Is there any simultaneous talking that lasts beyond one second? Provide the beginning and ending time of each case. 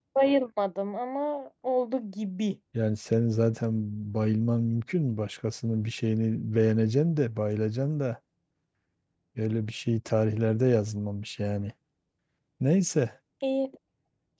none

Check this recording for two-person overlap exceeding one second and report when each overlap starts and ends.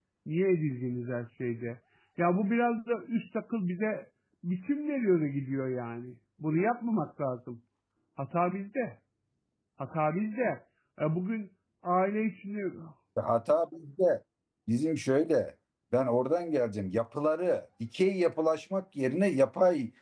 none

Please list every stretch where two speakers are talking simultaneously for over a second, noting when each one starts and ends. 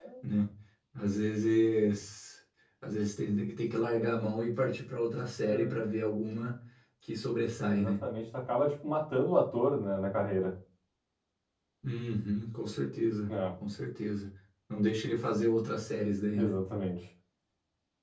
none

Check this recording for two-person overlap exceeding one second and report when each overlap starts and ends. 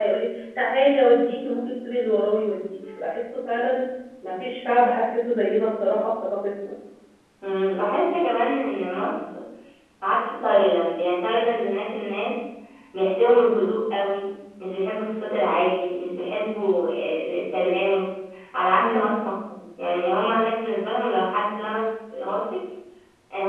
none

